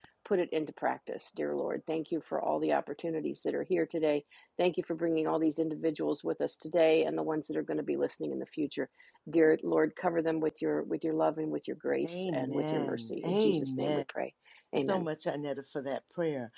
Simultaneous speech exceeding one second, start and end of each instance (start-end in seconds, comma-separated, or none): 12.0-14.0